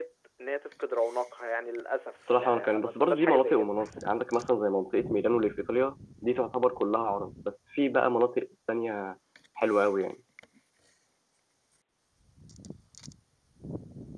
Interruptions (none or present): present